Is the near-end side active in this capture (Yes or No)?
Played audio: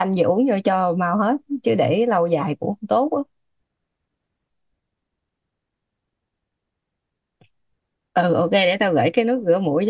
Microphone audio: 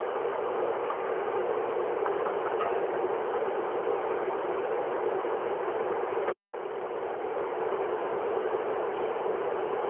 No